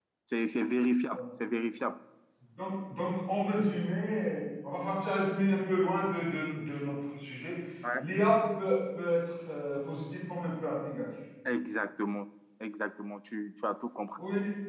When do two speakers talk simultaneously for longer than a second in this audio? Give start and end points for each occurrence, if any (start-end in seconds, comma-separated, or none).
none